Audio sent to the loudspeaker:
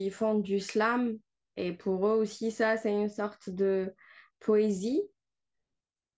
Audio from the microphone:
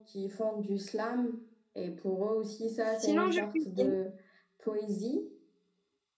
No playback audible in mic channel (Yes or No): No